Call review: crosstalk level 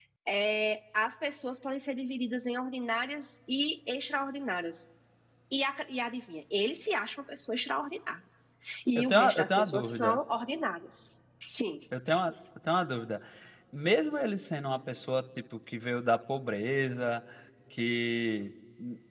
present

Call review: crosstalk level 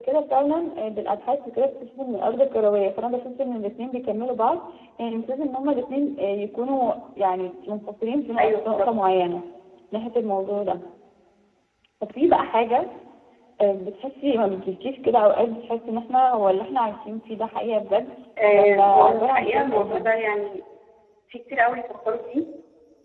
present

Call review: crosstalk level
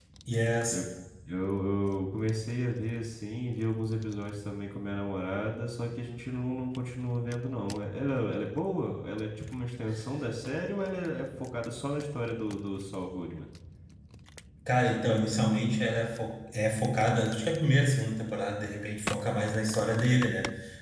none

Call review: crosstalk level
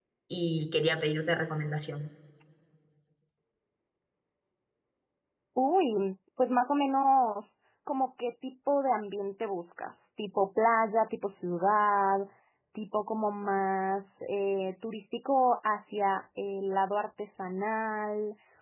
none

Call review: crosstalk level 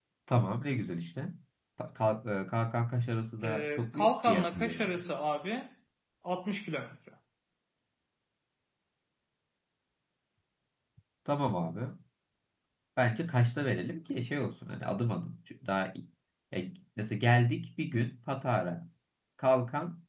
present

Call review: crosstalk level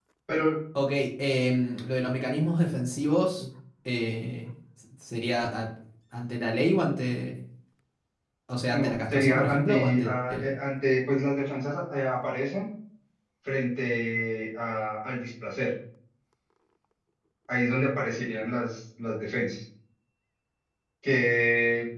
present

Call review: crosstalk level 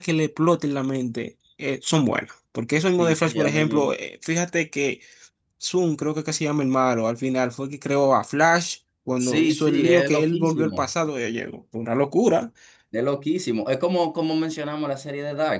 present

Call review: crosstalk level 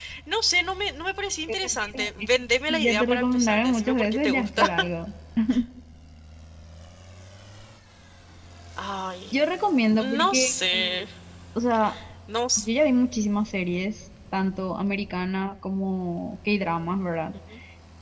present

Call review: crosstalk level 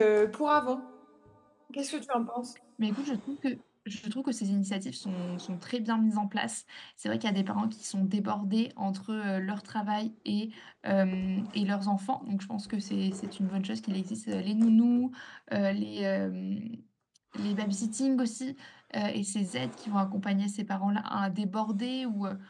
none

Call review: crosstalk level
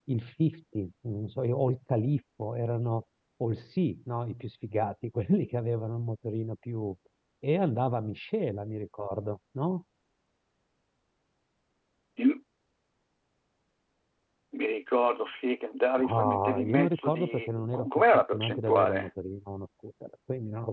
present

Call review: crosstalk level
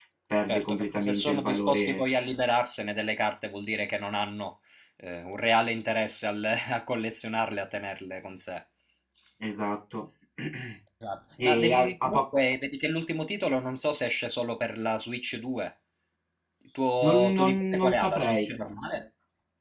present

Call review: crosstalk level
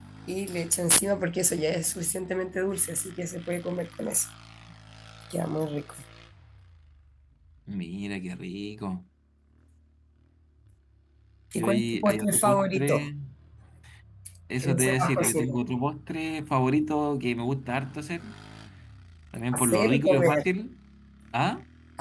present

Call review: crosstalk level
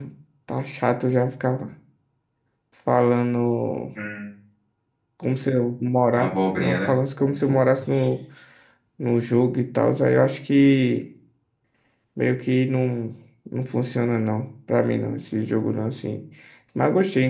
present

